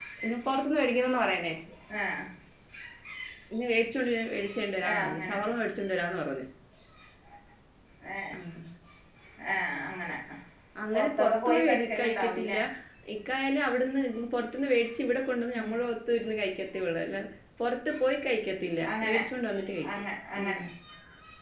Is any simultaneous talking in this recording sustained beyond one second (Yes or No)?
Yes